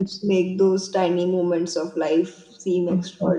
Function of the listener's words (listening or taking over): taking over